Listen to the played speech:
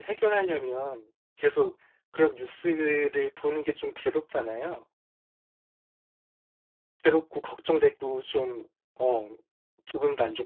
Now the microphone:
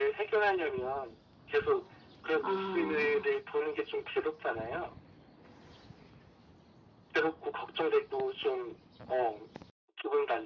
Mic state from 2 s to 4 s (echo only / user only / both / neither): both